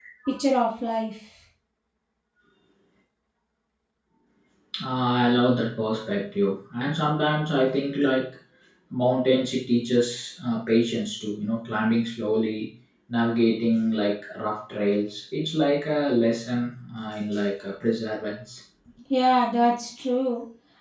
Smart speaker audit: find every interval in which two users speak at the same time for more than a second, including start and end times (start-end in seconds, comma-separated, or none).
none